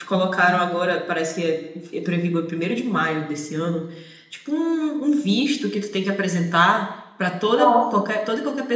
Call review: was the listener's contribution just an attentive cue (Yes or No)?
Yes